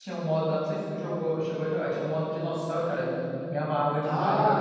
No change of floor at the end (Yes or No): No